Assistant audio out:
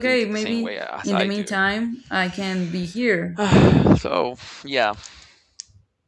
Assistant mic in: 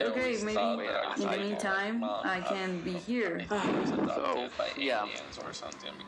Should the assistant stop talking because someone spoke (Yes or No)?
Yes